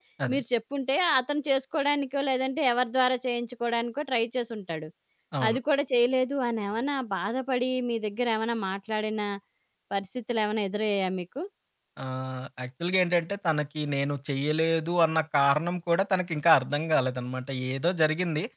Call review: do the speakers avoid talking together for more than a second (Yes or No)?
Yes